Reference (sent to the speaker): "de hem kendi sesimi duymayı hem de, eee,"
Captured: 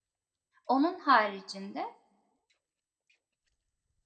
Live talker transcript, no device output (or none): Onun haricinde